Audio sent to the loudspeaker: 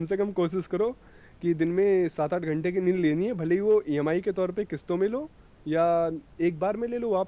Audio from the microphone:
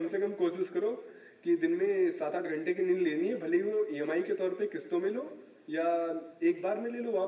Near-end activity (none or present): none